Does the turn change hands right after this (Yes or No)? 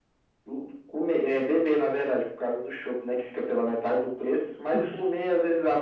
No